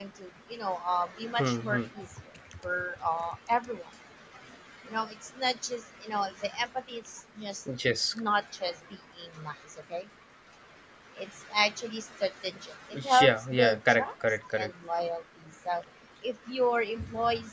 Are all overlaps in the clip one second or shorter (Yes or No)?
No